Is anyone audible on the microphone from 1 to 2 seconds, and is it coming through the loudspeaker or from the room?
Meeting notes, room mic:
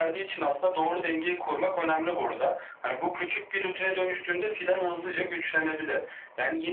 echo only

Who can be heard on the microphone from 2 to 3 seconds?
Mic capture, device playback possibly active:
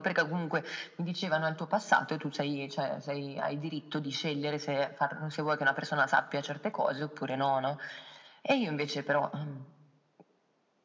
echo only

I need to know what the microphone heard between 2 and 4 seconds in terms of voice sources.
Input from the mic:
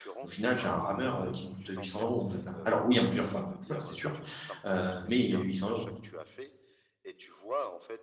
both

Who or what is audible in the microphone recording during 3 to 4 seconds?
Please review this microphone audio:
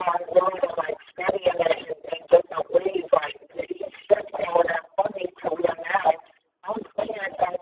echo only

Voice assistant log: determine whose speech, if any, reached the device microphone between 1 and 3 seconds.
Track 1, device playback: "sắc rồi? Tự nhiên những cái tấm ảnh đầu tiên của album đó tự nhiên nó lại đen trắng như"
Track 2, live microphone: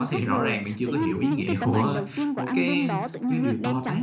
both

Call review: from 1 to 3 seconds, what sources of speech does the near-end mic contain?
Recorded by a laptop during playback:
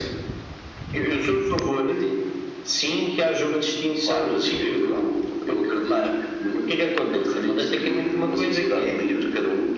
echo only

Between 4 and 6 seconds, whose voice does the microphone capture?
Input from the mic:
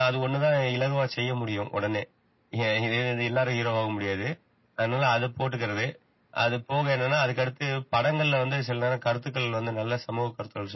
echo only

